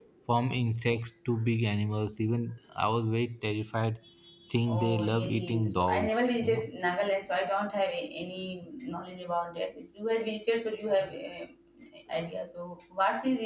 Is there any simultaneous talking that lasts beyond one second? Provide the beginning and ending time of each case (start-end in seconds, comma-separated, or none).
4.7-6.6